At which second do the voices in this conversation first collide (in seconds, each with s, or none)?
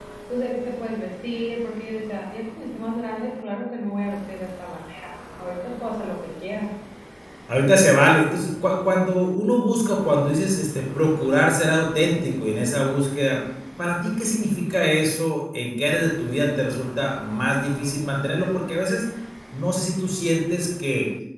none